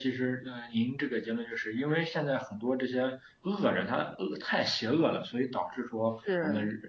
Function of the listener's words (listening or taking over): listening